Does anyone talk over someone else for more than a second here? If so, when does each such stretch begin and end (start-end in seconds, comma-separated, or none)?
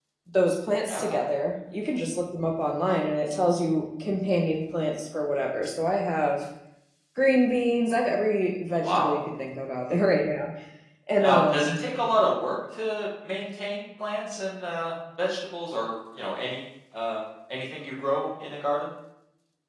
none